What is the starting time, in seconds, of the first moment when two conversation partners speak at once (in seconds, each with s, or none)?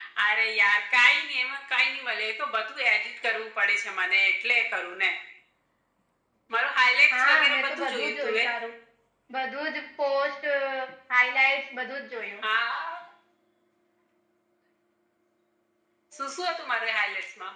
7.2 s